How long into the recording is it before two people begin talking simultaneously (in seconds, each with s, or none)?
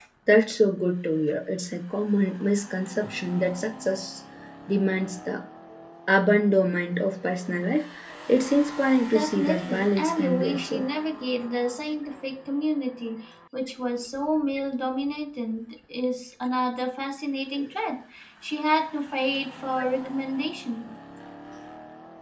9.1 s